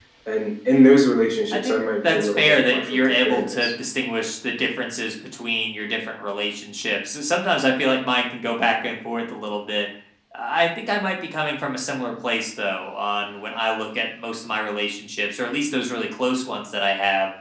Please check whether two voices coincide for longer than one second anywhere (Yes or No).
Yes